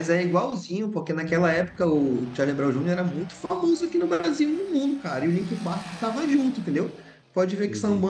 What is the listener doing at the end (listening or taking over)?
listening